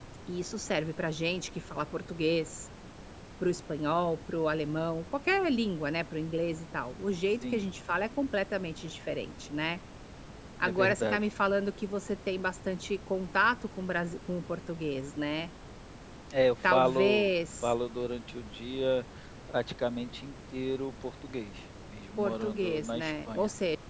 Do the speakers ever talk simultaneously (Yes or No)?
Yes